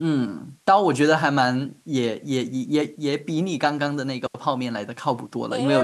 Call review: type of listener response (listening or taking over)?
taking over